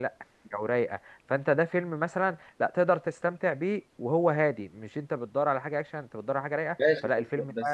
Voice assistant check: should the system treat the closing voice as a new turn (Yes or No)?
Yes